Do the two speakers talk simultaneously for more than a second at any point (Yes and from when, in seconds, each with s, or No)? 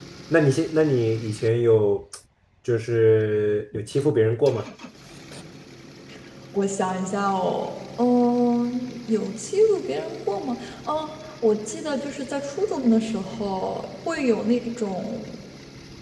No